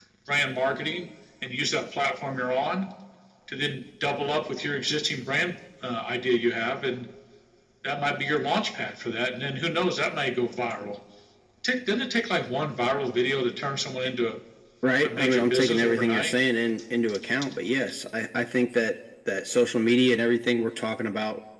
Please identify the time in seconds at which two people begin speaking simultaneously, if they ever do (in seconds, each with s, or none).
15.0 s